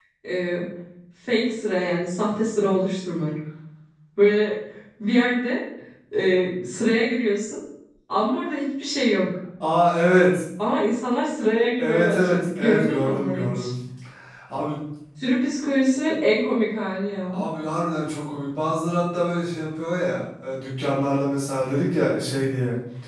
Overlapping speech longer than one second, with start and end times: 11.8-13.7

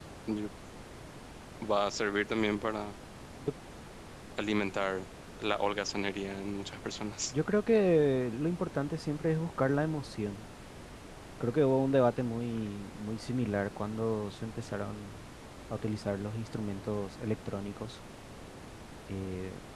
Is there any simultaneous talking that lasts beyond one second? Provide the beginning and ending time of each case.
none

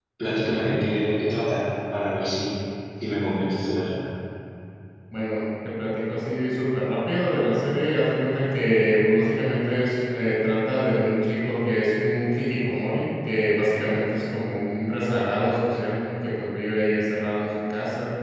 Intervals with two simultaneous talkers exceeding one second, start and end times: none

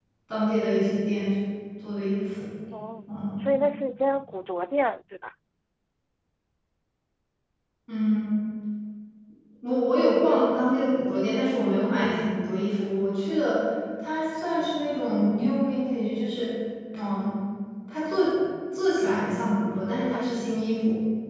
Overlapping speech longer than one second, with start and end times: none

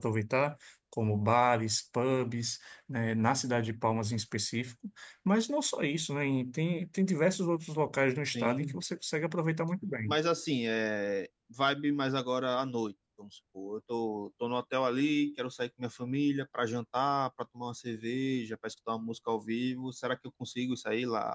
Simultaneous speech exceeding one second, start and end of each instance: none

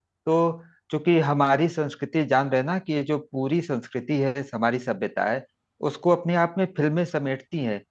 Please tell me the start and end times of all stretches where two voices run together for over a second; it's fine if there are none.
none

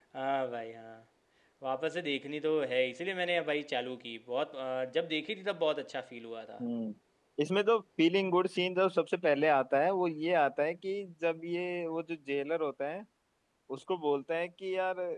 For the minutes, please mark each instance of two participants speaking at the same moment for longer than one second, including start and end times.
none

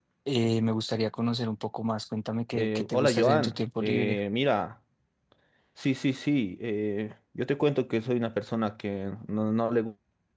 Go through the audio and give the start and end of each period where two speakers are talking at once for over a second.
2.5-4.2

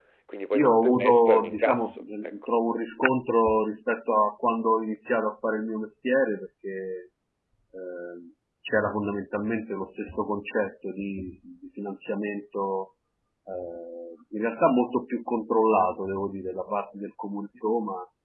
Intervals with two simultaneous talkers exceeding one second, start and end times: 0.5-2.4

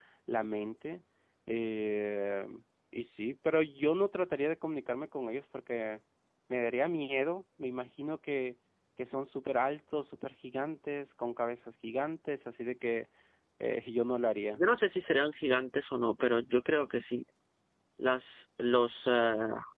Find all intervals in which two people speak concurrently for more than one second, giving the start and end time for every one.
none

